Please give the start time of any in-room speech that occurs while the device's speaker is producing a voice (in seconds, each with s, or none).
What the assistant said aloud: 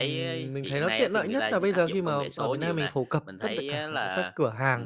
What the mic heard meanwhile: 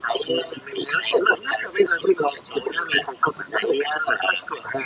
none